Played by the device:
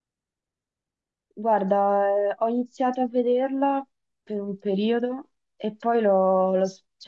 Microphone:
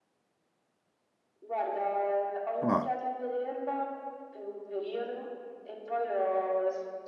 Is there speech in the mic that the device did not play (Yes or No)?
Yes